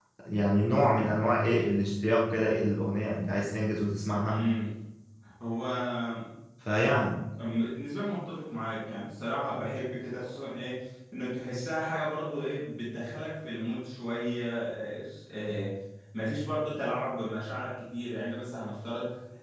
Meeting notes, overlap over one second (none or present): none